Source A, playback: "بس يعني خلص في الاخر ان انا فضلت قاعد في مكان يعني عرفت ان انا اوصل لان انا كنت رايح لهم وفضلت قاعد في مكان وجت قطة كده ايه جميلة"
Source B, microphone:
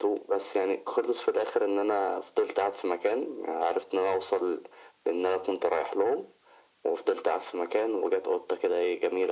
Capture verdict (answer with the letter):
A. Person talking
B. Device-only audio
B